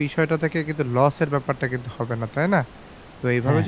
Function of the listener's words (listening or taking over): listening